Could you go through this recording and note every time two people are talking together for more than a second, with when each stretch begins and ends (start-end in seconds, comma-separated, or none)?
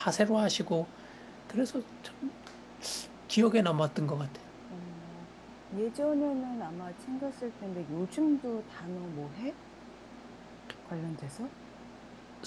none